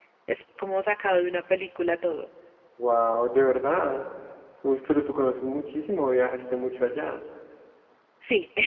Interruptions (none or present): none